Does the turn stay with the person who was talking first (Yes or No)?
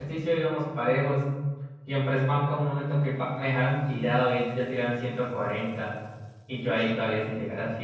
Yes